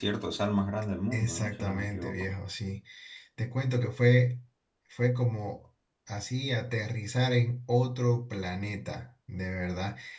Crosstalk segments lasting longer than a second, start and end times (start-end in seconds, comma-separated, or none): 1.1-2.4